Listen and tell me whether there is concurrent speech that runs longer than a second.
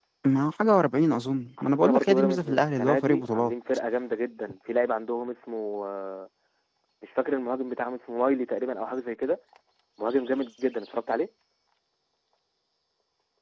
Yes, from 1.6 s

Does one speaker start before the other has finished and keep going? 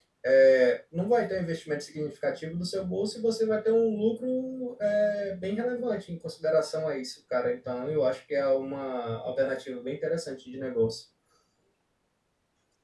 No

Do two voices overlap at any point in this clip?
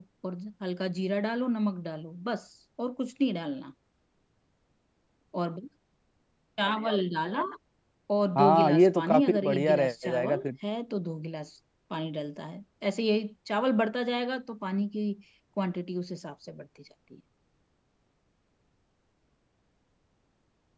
Yes, from 8.3 s

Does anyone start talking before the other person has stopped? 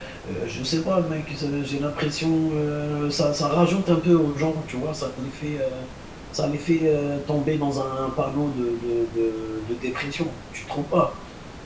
No

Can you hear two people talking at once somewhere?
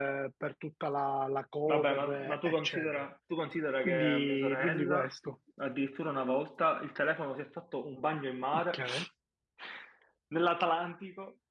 Yes, from 1.7 s

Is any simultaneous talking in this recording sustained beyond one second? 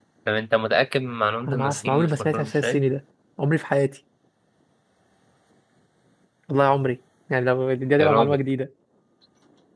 Yes, from 1.5 s

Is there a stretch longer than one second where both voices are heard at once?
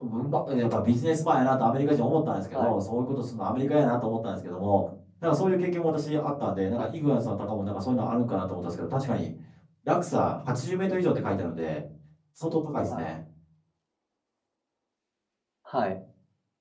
No

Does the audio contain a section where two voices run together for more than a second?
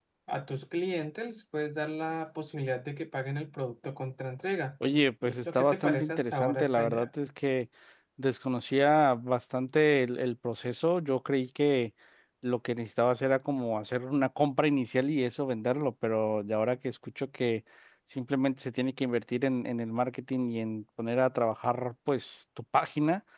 Yes, from 5.2 s

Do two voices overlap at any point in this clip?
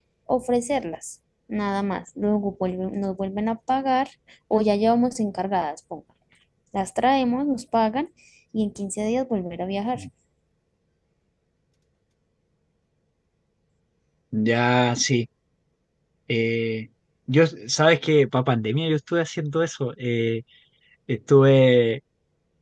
No

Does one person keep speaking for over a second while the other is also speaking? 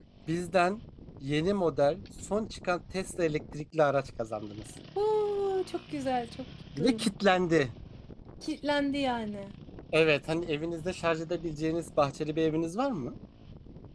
No

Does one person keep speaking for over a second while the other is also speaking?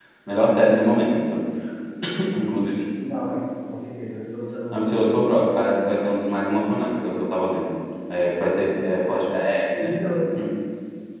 No

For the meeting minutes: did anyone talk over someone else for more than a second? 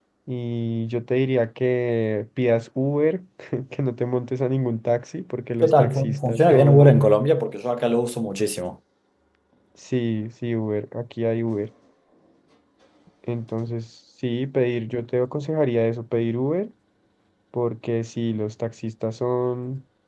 Yes, from 5.6 s

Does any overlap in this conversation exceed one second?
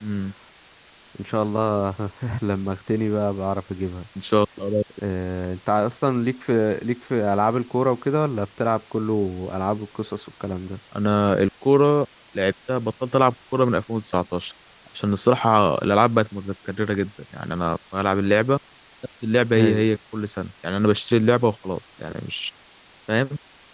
No

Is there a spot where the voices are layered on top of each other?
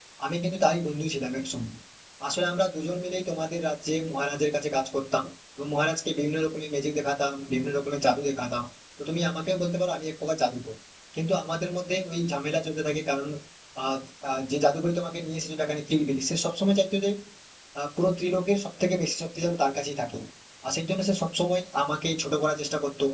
No

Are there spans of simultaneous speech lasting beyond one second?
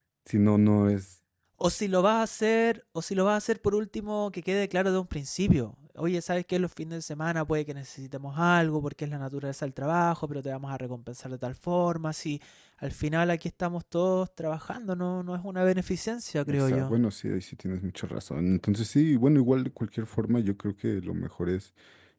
No

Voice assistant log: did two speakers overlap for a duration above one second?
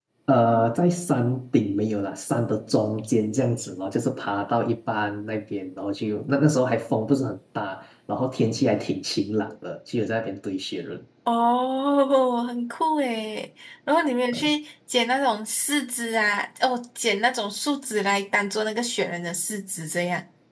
No

